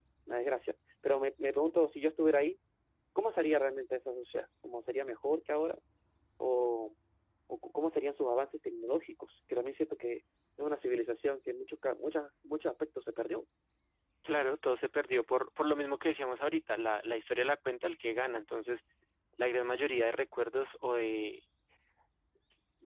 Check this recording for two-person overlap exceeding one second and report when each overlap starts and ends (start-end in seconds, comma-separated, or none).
none